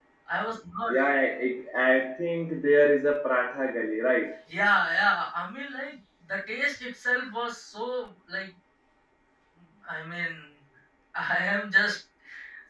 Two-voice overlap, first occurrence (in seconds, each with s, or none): none